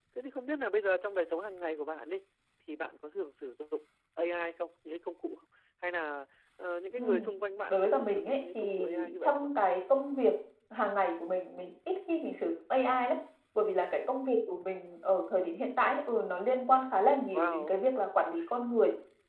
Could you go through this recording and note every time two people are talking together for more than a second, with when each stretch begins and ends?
7.7-9.5

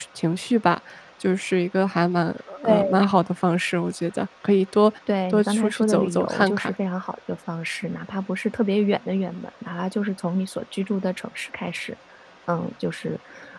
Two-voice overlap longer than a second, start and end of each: 5.3-6.7

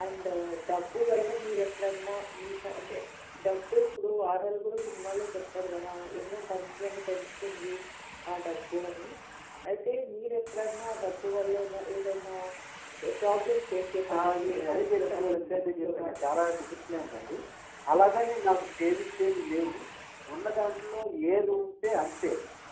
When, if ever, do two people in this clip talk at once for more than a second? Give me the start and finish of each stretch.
14.2-16.3

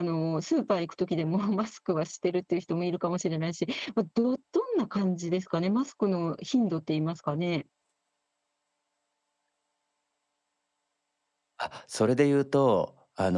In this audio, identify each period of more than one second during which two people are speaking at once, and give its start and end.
none

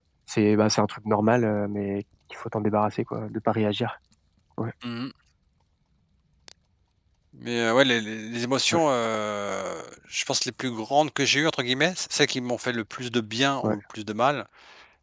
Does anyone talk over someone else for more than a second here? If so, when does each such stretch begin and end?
none

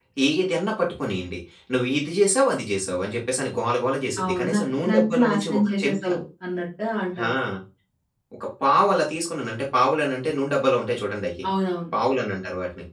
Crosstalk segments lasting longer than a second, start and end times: 4.2-6.1

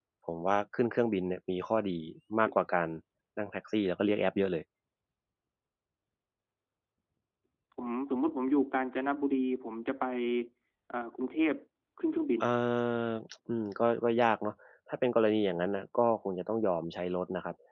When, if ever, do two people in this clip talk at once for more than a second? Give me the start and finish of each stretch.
none

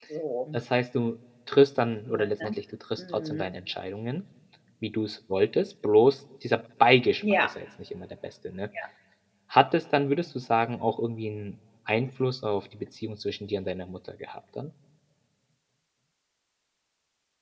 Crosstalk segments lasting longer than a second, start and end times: none

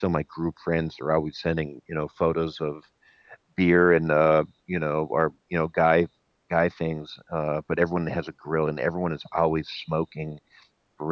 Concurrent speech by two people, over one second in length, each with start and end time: none

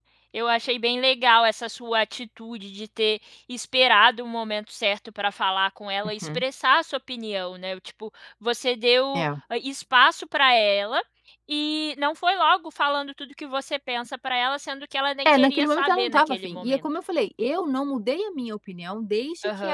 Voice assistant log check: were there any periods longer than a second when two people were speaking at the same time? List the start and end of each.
15.2-16.8

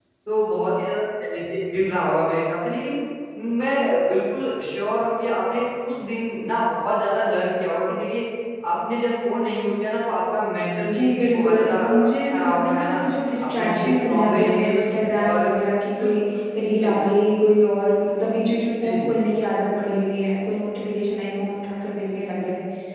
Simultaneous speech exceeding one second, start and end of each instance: 10.8-13.0, 13.4-15.4

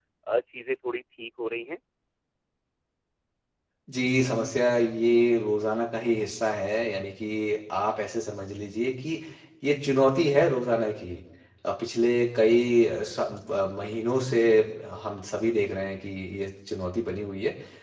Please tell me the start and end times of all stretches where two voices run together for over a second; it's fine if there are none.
none

